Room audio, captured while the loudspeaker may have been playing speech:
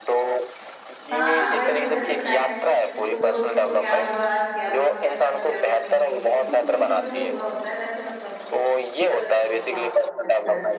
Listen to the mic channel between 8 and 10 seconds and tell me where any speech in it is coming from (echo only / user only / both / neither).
both